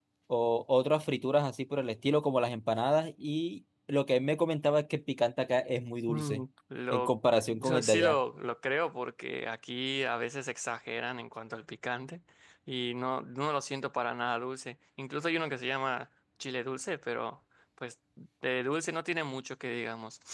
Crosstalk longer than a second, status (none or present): present